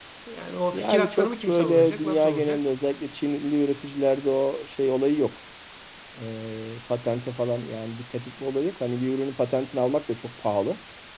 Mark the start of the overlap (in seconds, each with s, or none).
0.7 s